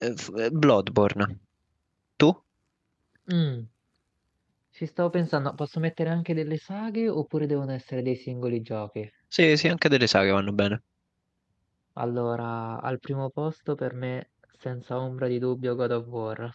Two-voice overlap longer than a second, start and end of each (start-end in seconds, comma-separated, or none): none